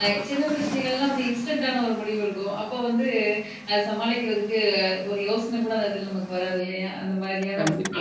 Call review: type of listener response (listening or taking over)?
listening